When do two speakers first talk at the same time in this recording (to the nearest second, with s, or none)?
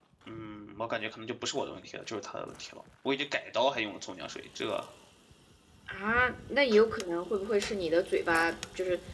none